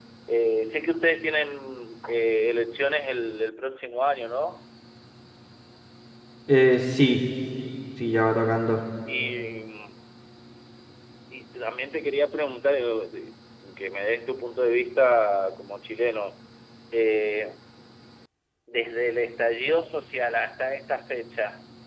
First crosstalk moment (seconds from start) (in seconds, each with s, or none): none